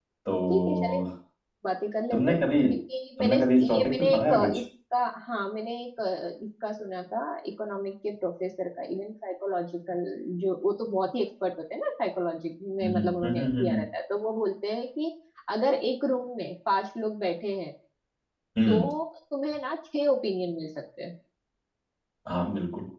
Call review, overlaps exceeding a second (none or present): present